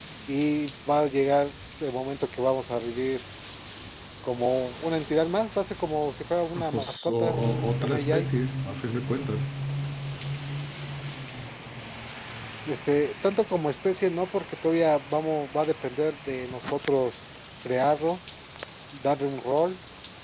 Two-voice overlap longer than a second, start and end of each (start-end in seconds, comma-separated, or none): 6.7-8.3